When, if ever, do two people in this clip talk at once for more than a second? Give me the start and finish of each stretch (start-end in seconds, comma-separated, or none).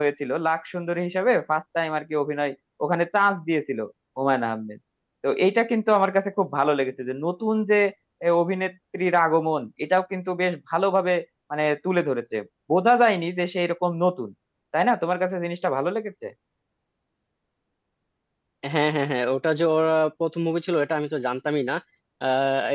none